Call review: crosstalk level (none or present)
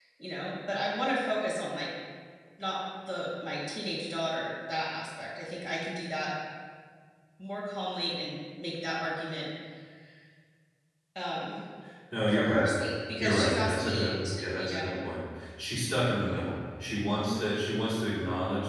present